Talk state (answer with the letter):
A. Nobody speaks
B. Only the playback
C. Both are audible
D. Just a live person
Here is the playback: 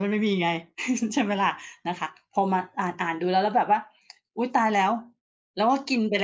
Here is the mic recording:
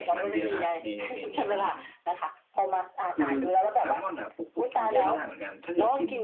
C